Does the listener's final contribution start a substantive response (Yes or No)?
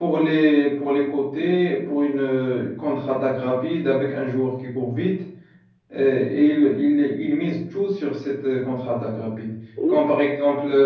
No